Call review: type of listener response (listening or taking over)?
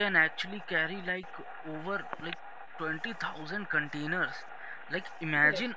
listening